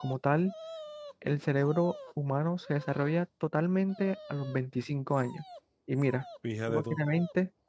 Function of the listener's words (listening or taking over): listening